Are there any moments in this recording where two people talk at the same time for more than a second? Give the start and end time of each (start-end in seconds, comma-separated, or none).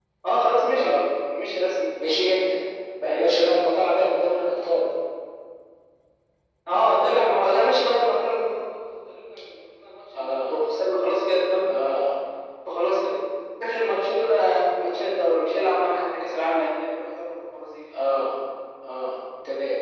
none